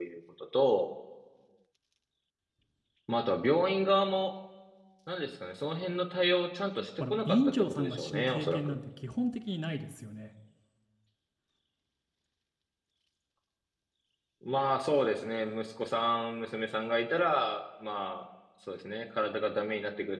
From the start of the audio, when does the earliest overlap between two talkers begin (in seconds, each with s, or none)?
7.0 s